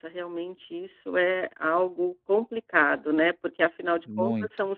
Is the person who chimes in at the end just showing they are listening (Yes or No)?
Yes